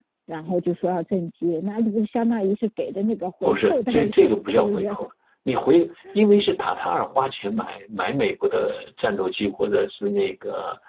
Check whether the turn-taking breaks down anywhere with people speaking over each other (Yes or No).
Yes